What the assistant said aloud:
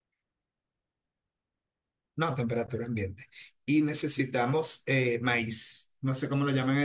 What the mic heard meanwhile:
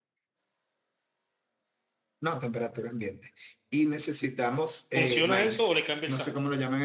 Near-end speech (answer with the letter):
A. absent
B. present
B